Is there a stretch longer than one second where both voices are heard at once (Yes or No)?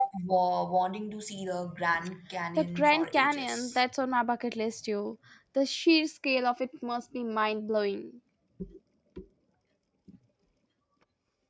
Yes